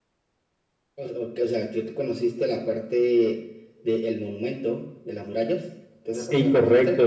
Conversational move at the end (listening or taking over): taking over